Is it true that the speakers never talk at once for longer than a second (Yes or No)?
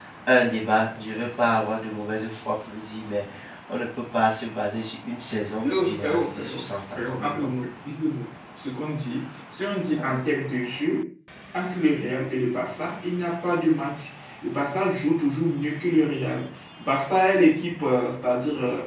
No